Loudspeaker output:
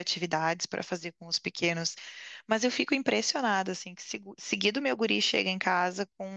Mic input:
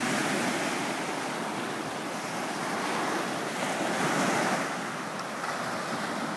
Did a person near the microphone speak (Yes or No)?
No